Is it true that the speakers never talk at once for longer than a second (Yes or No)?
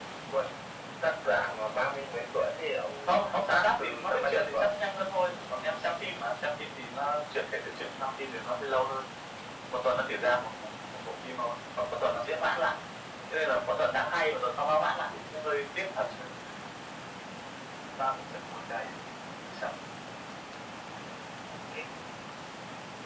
No